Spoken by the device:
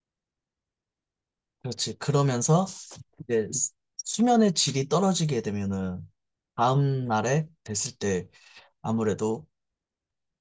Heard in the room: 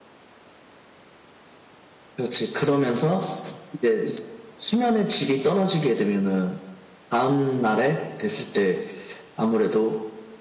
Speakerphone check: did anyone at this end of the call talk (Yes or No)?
No